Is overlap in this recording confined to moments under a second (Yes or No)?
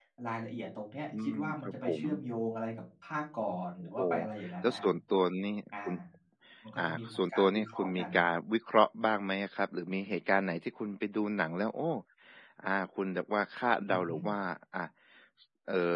No